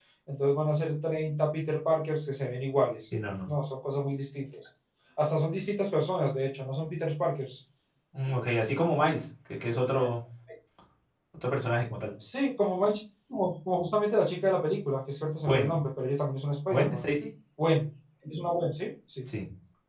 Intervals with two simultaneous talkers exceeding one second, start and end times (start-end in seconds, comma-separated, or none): none